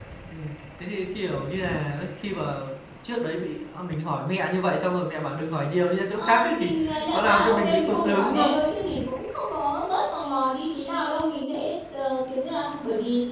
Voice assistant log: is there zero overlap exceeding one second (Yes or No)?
No